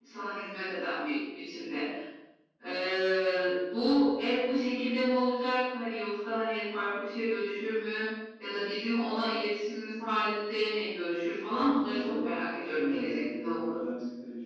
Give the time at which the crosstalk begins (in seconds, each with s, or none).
11.6 s